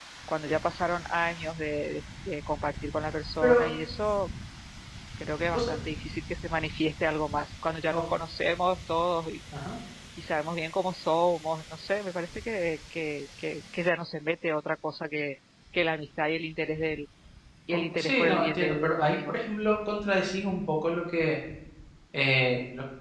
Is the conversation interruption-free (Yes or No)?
No